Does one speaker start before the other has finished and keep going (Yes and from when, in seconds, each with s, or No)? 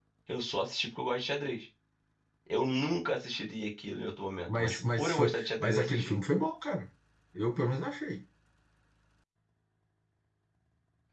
Yes, from 4.5 s